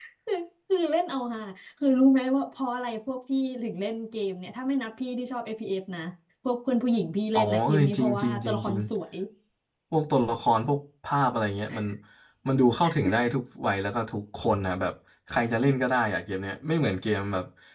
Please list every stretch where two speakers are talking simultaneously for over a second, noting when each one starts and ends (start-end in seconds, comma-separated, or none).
7.4-8.8